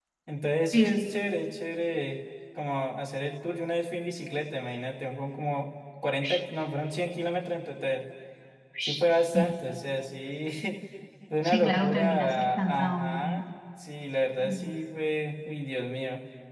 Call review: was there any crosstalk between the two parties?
Yes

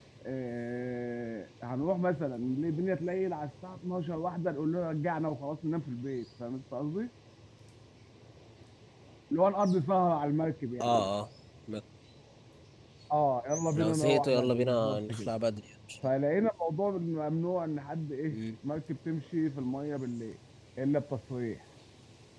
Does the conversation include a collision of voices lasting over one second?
Yes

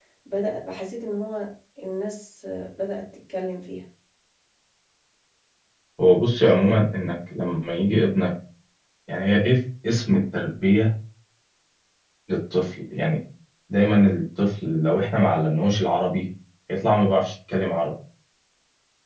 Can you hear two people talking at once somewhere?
No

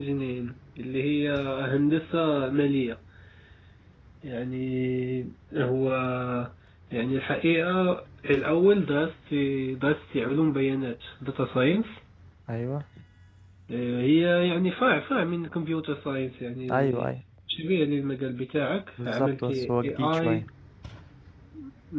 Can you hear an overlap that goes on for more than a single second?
Yes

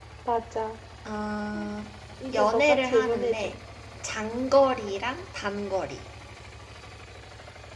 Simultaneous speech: Yes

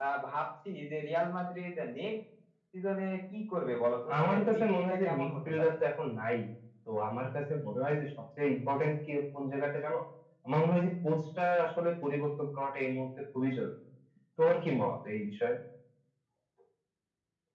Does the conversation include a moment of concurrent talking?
Yes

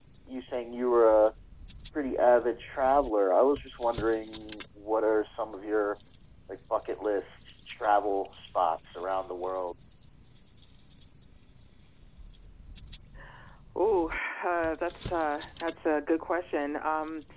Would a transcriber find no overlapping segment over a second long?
Yes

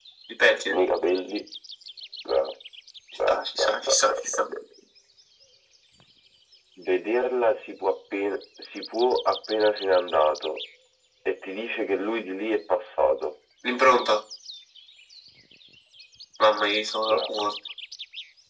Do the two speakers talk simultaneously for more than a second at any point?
Yes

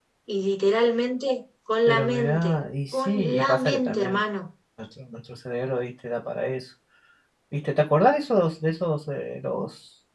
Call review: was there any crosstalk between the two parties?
Yes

